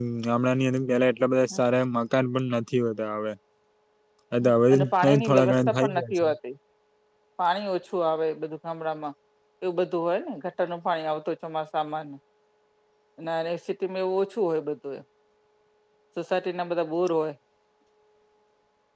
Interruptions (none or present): present